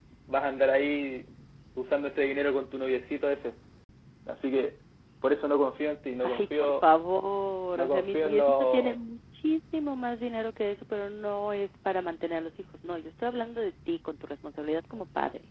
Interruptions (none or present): present